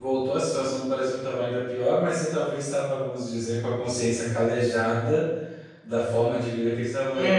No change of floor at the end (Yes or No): No